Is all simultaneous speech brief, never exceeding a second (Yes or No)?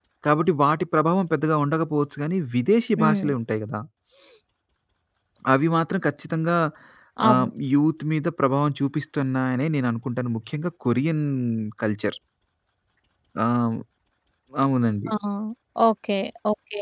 Yes